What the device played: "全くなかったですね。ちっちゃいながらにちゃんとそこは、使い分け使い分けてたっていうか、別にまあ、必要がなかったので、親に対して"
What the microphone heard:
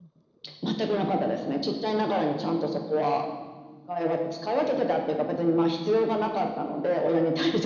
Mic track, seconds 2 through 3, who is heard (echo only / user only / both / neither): echo only